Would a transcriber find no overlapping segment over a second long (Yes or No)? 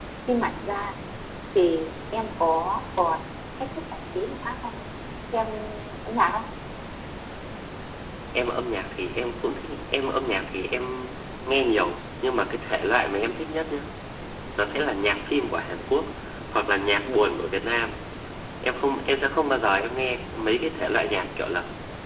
Yes